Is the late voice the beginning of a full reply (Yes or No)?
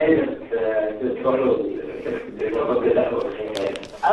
Yes